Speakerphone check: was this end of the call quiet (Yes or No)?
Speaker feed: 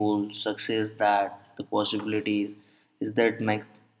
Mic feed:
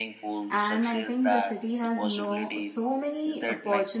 No